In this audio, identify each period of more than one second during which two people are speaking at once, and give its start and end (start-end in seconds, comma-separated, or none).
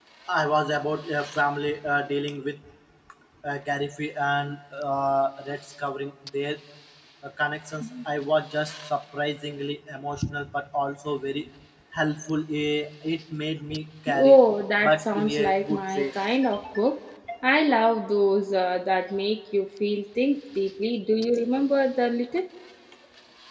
14.8-16.1